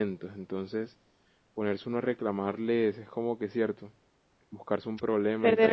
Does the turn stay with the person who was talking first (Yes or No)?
No